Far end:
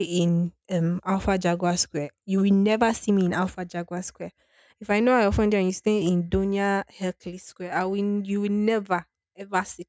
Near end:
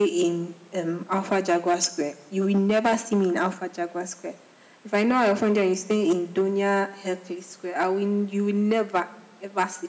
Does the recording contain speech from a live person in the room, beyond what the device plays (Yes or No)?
No